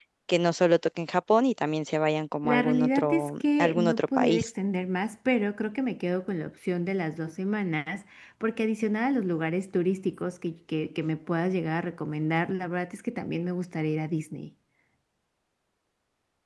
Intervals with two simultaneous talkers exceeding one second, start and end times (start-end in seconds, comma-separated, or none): 2.4-4.5